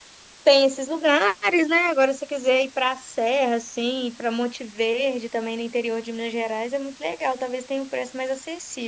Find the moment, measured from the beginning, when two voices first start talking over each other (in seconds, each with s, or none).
none